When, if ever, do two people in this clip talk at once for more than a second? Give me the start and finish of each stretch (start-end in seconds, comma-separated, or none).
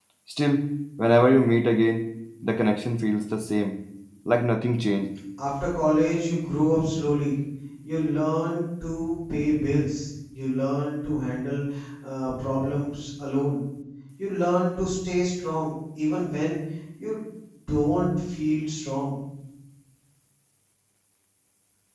none